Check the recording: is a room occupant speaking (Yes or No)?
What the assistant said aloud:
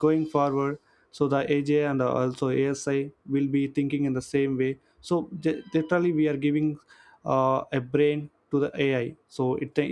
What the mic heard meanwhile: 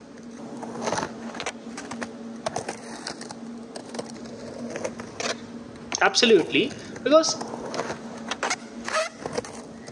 Yes